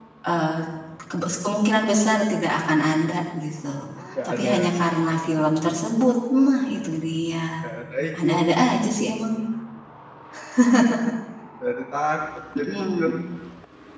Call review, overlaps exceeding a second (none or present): none